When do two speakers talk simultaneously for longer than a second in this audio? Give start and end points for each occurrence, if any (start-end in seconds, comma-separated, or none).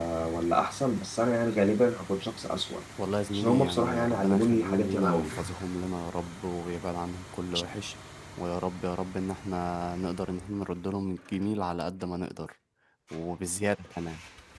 3.3-5.3